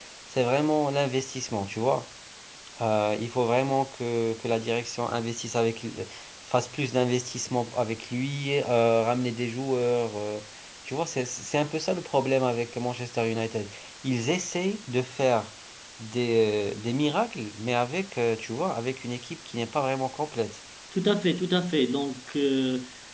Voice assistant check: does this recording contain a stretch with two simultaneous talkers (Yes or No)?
No